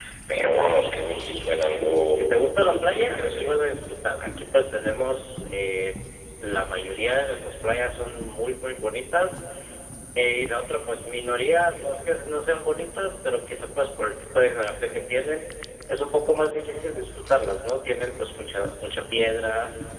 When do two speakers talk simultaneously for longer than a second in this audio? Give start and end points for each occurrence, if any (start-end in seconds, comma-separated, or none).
1.6-3.5